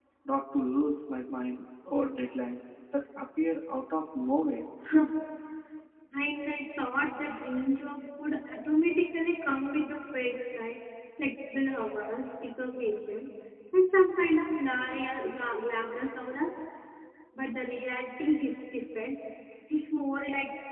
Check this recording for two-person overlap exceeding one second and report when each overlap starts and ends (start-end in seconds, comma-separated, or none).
none